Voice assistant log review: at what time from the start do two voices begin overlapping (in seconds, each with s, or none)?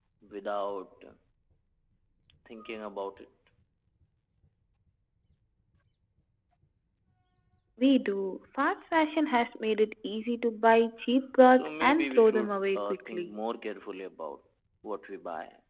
11.4 s